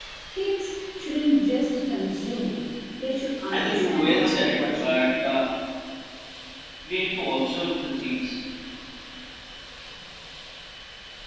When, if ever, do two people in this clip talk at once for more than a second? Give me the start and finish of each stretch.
3.5-5.0

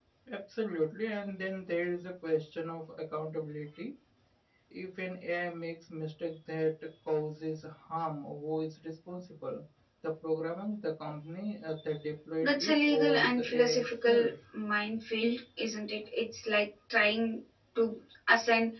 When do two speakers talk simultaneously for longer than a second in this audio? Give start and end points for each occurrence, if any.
12.4-14.3

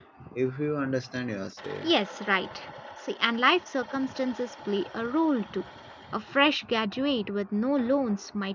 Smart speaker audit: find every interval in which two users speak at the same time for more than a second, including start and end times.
none

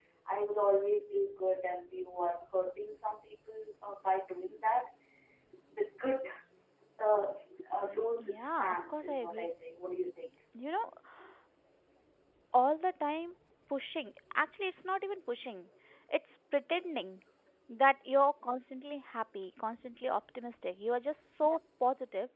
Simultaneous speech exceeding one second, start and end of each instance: 8.2-9.5

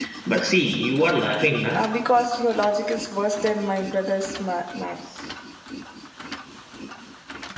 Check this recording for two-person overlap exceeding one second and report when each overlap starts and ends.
none

